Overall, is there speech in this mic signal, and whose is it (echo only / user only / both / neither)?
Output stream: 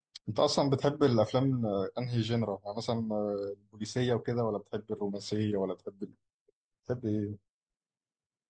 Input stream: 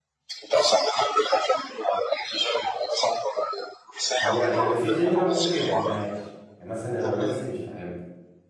both